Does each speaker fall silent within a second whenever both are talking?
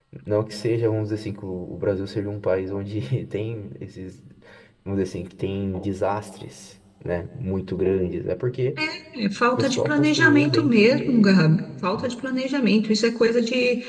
No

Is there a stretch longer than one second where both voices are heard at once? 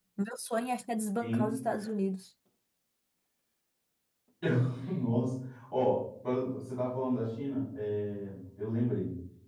No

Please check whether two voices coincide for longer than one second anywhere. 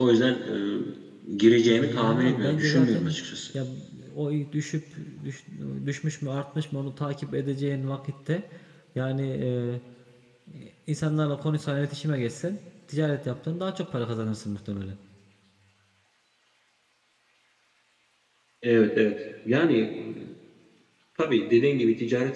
Yes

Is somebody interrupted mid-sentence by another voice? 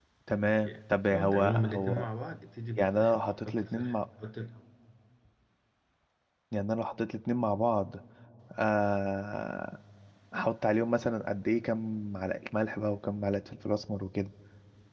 Yes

